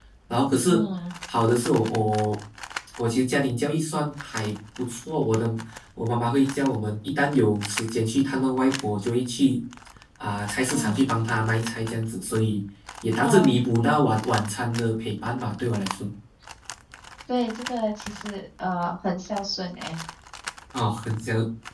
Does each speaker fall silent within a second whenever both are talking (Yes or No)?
Yes